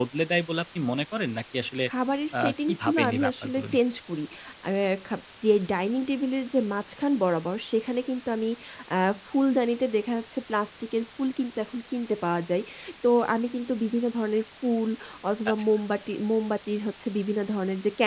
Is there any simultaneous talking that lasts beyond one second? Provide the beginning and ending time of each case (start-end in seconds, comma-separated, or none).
2.4-3.8